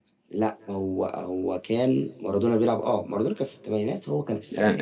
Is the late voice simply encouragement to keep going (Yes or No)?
No